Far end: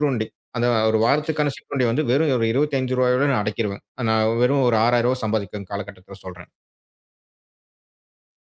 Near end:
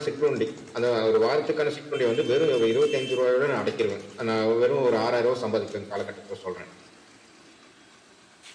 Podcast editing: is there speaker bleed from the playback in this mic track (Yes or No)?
Yes